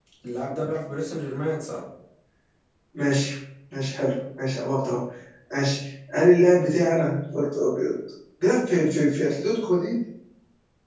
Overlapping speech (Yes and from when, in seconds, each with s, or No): No